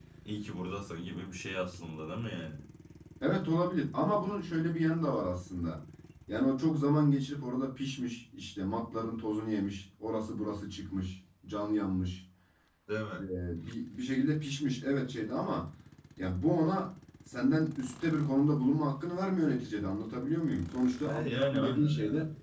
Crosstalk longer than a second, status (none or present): present